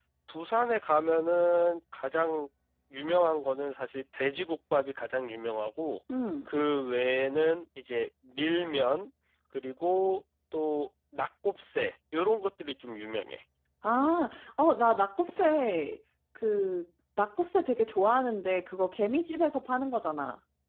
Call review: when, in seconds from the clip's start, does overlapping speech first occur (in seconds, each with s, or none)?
none